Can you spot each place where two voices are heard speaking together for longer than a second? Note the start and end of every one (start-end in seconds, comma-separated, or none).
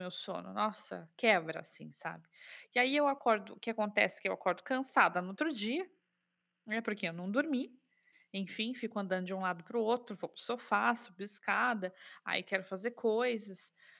none